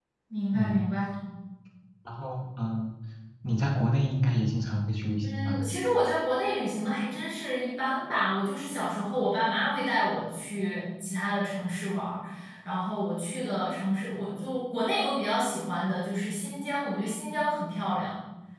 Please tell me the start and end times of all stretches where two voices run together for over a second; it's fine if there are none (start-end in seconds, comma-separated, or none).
none